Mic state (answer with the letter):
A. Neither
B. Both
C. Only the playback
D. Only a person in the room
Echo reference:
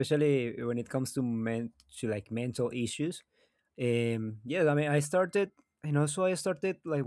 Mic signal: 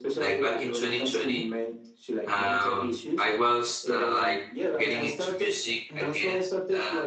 B